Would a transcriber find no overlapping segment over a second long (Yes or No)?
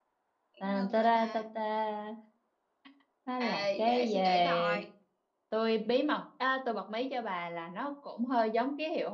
No